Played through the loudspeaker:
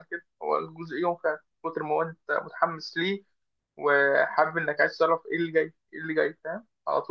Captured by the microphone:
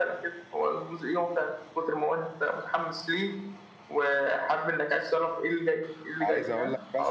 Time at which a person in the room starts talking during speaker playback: 6.2 s

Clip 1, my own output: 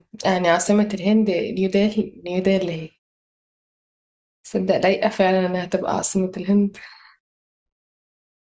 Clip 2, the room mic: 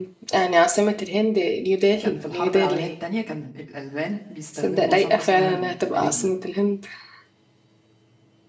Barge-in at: 2.0 s

